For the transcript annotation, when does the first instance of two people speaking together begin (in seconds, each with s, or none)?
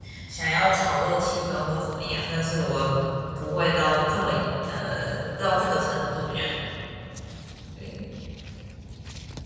none